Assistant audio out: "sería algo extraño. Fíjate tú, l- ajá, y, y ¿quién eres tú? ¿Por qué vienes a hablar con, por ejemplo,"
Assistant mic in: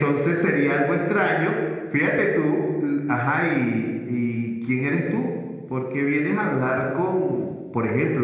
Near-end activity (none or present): none